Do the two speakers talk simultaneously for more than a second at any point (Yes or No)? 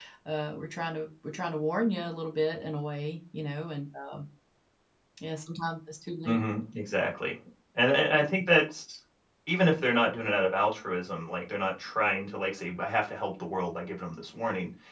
No